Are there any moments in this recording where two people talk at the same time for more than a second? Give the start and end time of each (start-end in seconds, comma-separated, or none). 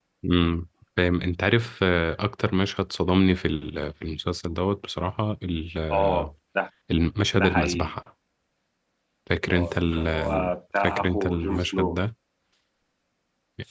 9.5-12.0